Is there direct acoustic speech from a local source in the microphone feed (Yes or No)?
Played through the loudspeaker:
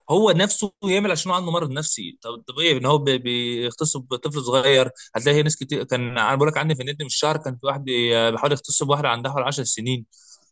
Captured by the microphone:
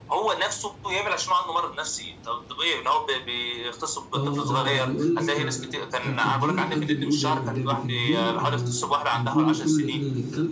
Yes